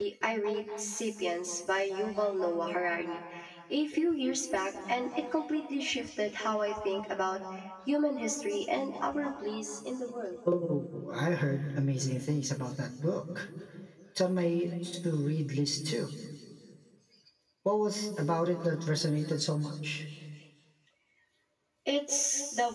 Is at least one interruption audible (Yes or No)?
No